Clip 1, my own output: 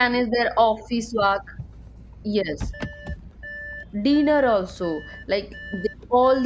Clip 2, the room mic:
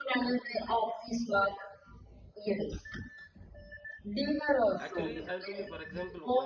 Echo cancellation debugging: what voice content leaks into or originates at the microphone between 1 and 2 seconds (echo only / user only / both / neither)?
echo only